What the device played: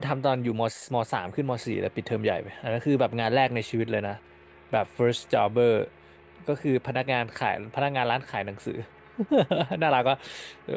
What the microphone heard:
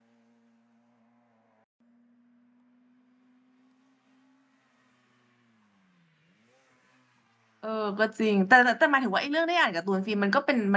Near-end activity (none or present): present